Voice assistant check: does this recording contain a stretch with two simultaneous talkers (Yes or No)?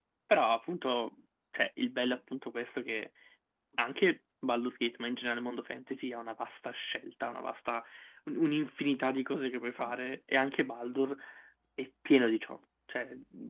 No